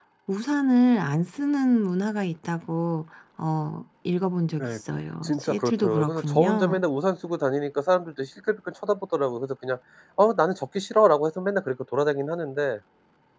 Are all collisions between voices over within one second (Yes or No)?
No